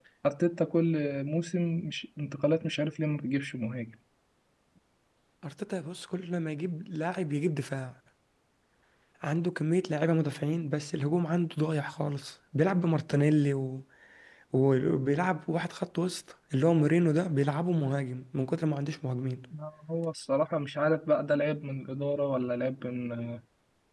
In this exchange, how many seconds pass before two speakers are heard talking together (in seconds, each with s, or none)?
none